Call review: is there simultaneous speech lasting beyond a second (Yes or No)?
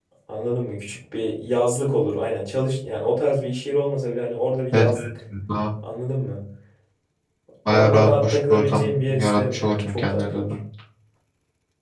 Yes